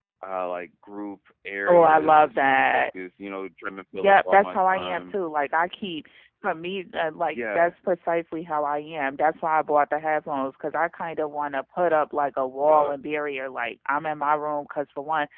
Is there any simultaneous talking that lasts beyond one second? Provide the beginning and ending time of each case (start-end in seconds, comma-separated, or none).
1.7-2.9, 3.9-5.1